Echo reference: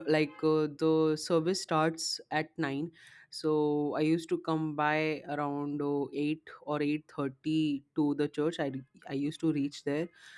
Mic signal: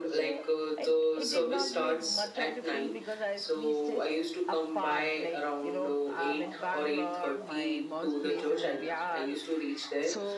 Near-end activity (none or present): present